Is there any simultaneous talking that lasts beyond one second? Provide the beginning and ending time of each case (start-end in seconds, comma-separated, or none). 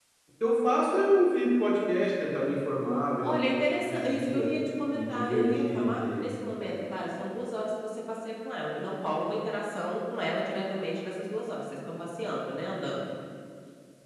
3.2-4.5, 4.9-6.8